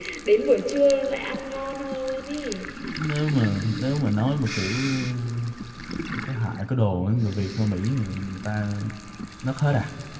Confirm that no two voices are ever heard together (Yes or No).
Yes